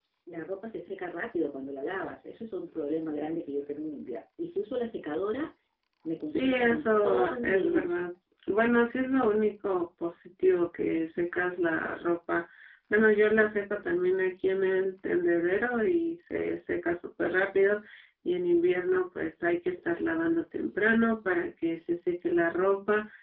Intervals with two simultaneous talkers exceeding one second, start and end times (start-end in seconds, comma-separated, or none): 6.2-8.0